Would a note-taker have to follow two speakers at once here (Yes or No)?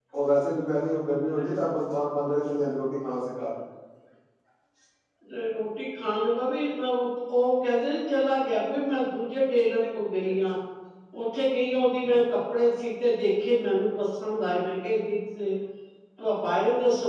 No